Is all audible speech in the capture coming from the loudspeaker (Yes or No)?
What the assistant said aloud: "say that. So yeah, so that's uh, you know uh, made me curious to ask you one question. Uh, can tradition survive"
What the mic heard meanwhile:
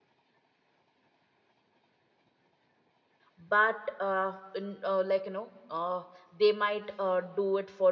No